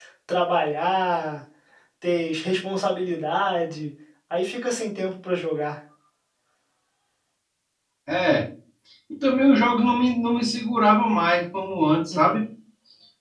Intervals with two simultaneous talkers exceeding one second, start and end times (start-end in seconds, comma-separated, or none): none